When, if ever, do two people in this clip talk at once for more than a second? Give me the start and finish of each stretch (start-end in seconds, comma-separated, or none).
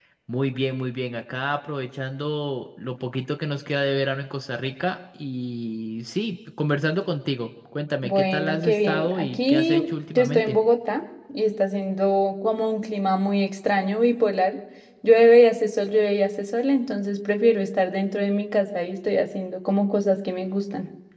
8.0-9.8